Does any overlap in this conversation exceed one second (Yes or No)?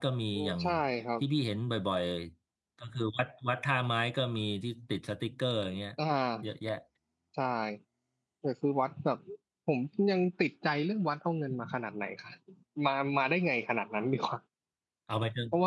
No